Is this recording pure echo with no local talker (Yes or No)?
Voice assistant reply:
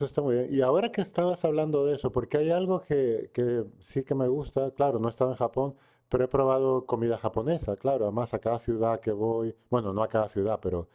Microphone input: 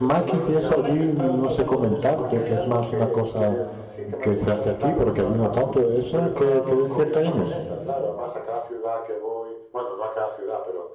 No